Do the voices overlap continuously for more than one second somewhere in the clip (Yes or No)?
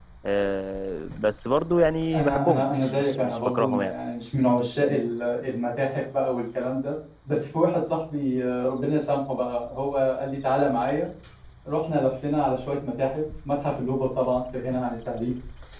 Yes